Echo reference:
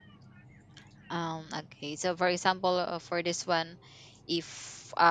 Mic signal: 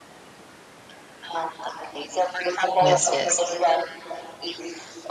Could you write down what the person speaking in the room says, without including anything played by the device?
yes yes

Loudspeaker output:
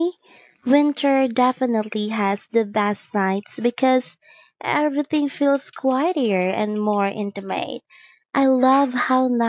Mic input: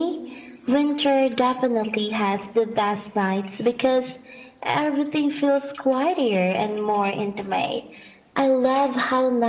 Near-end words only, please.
none

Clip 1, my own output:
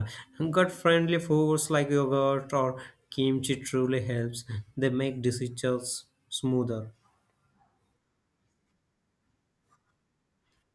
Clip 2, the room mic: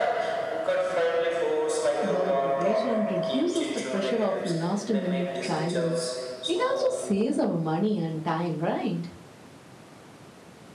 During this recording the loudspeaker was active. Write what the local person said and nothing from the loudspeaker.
The preparation reduces the pressure of last minute choices. It also saves our money and time, right?

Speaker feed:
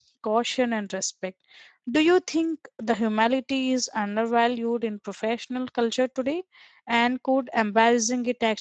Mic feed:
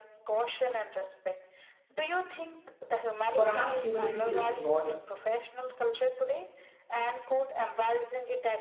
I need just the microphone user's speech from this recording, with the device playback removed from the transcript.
Perhaps humility is not

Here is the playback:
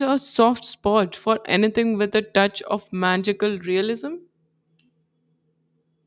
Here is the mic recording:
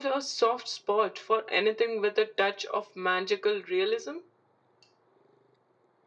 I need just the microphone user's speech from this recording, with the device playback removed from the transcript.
none

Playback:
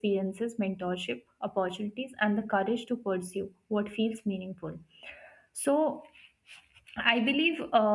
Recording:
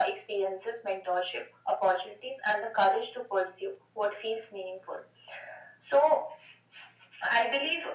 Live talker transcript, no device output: none

